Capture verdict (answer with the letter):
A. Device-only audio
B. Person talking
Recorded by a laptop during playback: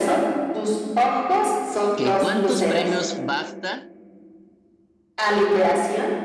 B